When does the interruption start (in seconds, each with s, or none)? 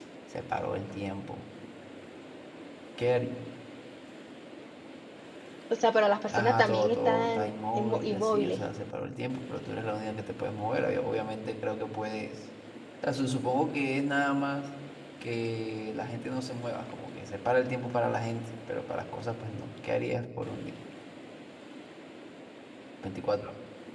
6.3 s